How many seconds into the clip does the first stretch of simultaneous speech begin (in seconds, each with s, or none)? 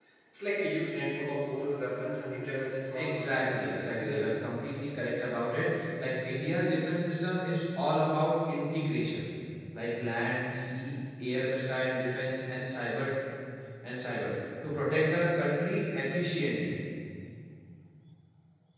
2.9 s